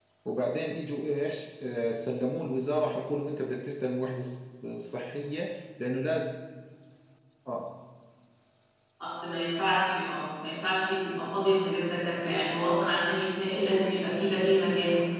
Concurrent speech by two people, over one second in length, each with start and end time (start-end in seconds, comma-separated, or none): none